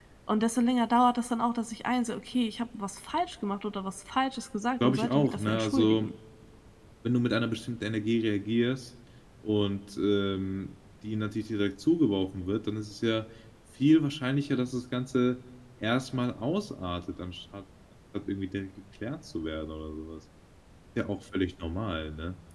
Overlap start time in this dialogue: 4.8 s

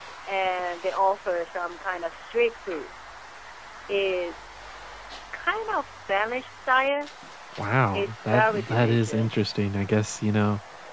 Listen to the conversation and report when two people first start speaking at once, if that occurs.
7.9 s

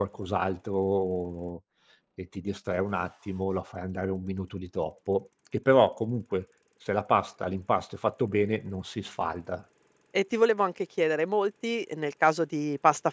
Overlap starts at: none

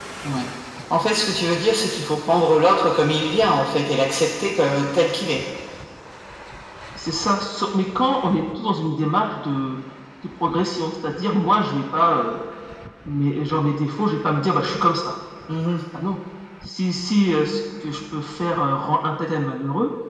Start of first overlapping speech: none

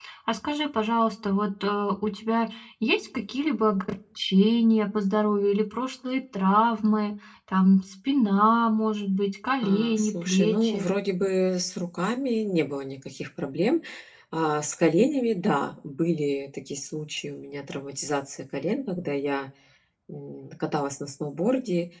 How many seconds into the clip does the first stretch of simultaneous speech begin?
9.6 s

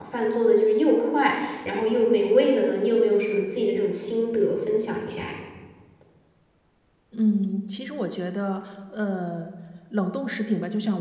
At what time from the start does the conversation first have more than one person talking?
none

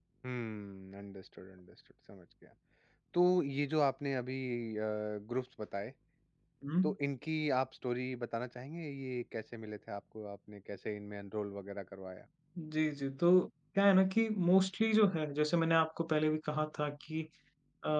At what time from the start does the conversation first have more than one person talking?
none

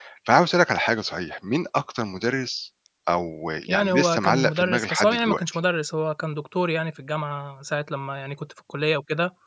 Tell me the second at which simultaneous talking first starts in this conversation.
3.7 s

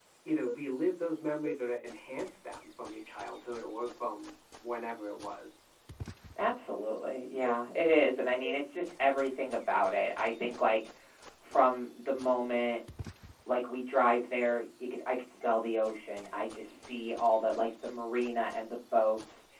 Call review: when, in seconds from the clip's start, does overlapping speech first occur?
none

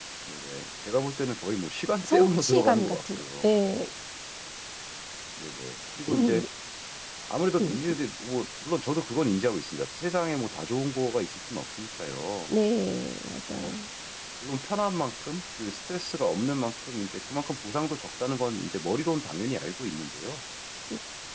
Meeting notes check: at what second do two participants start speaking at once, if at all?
2.0 s

